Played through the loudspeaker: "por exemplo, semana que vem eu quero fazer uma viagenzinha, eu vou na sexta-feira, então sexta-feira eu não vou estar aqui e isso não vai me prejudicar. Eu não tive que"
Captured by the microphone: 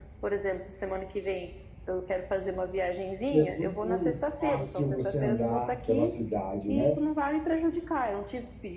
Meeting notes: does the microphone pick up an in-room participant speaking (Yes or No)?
Yes